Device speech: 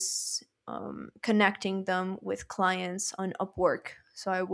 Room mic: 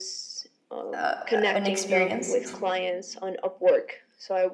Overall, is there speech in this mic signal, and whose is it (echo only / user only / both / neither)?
both